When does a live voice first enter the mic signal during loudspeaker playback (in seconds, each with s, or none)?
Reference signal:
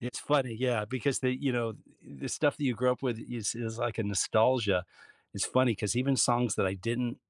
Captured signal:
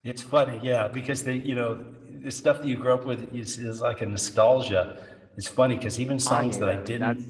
6.2 s